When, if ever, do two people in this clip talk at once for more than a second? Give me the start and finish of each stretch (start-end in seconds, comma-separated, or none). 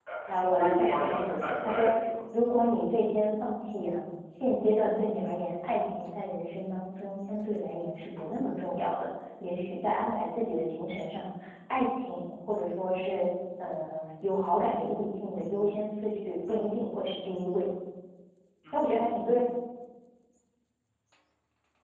0.6-1.9